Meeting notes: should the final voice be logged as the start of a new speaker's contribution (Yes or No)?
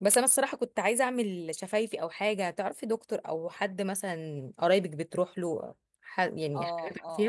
Yes